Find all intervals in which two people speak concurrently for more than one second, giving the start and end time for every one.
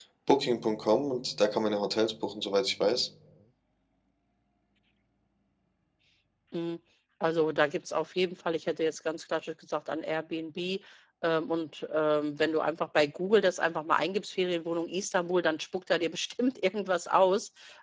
none

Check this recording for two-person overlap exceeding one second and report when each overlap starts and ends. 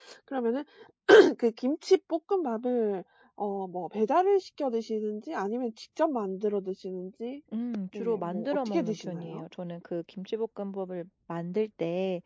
8.0-9.4

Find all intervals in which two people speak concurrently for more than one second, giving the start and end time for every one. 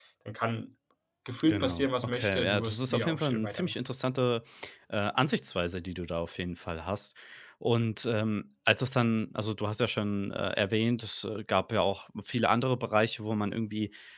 1.5-3.7

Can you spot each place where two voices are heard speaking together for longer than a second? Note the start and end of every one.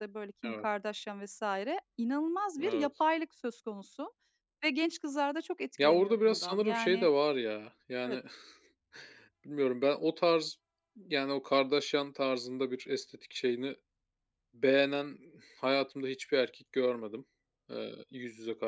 5.8-7.1

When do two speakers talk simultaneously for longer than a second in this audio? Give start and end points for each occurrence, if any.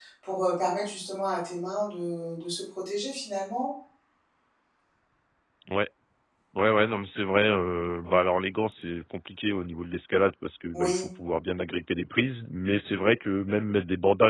none

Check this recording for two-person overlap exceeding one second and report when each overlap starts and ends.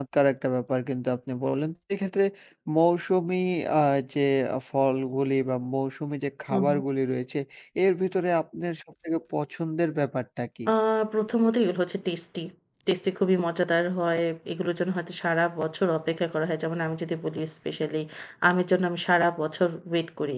none

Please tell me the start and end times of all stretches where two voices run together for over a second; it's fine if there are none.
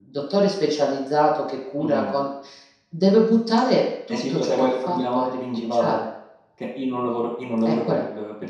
4.1-6.0

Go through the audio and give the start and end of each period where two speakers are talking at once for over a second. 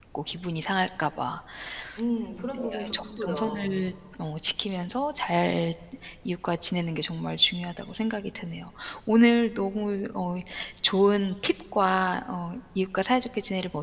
2.5-3.7

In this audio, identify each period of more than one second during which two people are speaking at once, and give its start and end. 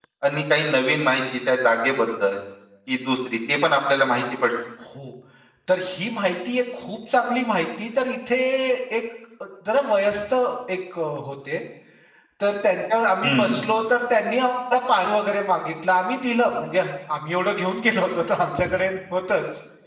none

